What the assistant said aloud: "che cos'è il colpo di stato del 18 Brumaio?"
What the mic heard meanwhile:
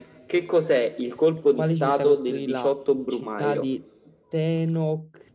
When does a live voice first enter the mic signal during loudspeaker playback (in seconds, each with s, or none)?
1.5 s